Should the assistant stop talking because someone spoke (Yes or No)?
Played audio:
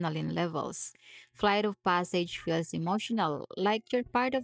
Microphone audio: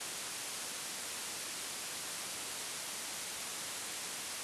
No